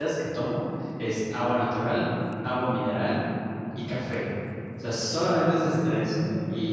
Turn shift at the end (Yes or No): No